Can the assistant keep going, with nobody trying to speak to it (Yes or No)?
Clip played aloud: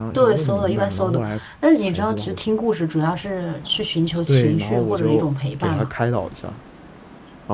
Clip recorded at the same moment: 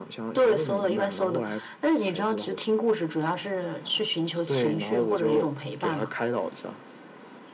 Yes